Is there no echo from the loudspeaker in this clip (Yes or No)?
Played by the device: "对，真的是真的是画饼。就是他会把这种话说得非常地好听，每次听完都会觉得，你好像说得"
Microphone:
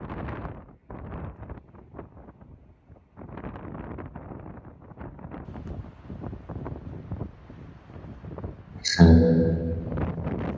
Yes